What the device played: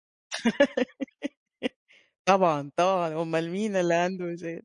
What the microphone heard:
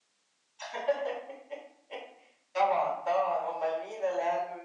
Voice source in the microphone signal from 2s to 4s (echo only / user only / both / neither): echo only